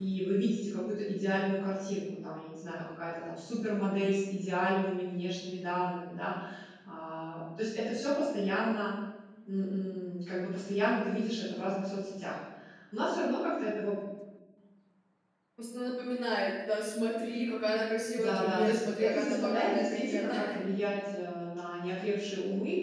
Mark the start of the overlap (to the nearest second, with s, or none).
18 s